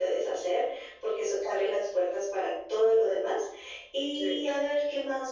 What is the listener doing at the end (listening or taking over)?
listening